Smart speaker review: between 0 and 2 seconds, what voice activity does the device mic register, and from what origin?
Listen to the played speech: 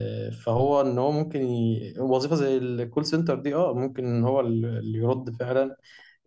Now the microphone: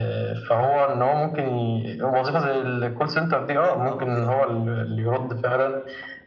echo only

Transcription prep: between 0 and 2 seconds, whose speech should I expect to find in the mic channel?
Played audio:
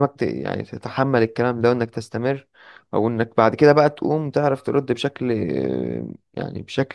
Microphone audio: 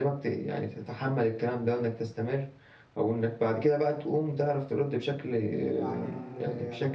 echo only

